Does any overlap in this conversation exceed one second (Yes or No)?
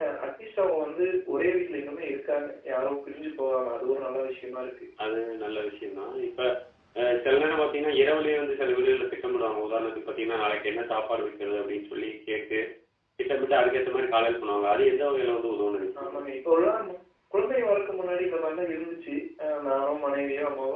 No